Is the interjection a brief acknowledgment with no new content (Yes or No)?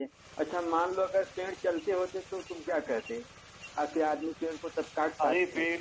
No